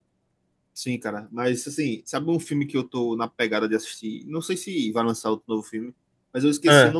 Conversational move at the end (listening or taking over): listening